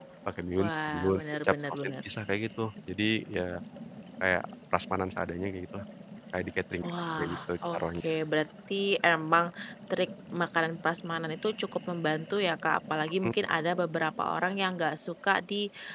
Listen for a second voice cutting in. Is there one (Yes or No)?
Yes